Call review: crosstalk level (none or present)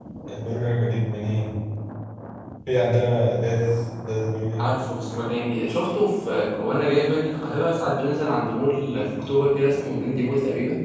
none